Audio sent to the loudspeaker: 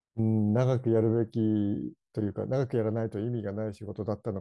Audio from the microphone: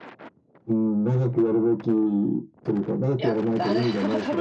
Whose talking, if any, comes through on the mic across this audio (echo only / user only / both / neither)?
both